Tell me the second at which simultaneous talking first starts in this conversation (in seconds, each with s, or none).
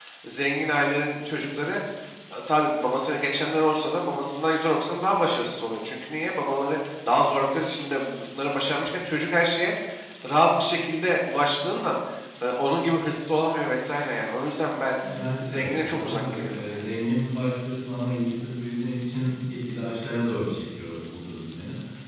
15.4 s